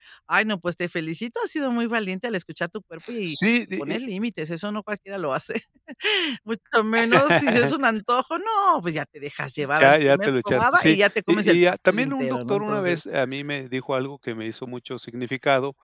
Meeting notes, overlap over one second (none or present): present